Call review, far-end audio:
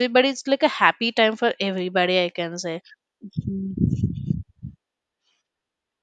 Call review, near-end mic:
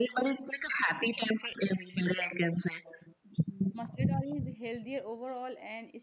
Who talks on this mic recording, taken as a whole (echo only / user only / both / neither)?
both